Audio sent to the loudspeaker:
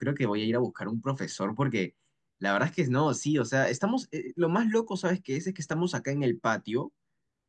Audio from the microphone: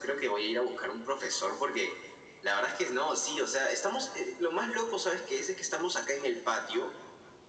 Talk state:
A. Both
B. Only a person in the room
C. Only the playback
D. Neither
C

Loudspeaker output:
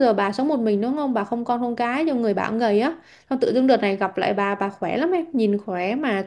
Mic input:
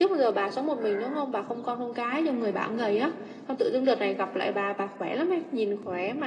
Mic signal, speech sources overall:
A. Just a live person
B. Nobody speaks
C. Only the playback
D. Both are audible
C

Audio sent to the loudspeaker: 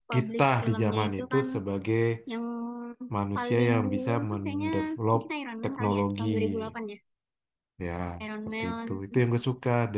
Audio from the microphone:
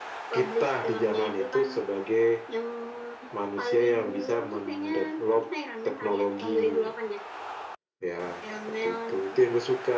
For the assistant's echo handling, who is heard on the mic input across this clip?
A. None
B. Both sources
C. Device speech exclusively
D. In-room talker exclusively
C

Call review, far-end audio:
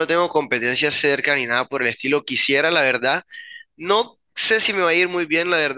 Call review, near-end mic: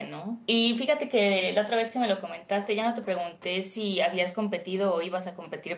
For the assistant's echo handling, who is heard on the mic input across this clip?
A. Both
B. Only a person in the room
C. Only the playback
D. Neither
B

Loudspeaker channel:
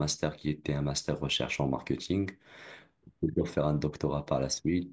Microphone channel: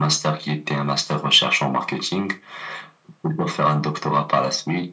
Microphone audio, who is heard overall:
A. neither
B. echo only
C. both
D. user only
B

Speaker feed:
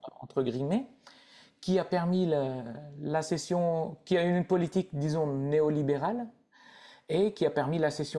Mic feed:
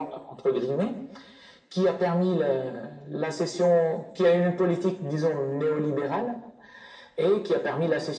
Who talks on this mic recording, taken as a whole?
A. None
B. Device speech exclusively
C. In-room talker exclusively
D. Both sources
B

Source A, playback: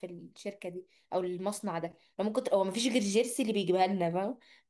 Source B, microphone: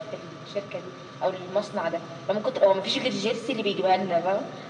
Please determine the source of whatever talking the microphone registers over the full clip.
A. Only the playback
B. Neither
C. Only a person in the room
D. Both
A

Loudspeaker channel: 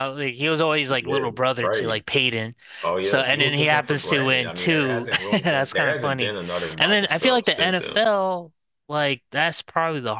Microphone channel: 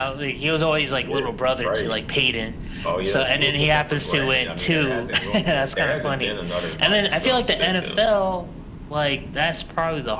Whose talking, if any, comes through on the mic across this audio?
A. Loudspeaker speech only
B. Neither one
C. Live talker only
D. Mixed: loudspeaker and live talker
A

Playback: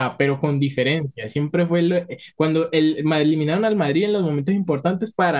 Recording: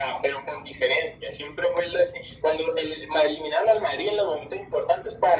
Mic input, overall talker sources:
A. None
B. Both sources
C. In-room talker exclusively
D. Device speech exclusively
D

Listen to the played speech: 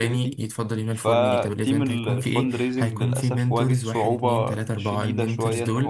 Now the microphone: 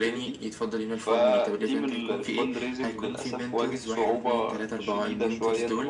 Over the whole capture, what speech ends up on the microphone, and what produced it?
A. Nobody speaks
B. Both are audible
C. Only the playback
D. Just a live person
C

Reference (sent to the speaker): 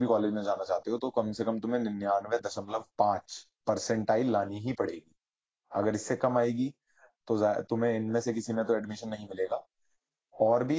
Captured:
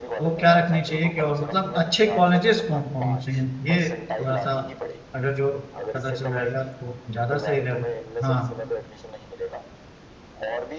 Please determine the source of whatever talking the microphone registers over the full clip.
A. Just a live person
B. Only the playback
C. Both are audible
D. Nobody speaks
C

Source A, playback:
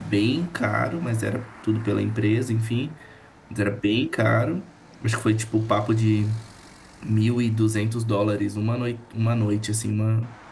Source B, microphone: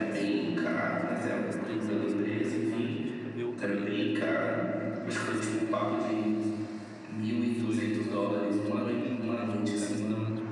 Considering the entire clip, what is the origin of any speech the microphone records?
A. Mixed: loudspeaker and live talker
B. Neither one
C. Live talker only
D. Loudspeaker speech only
A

